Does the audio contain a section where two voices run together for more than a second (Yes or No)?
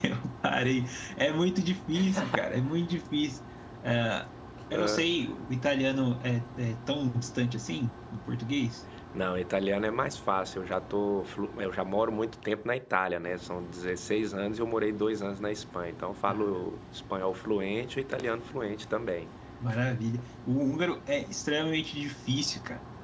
No